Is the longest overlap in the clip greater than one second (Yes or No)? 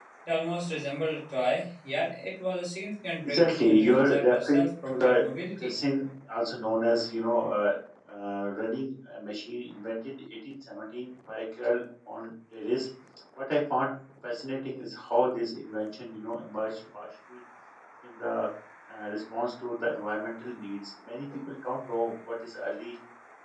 Yes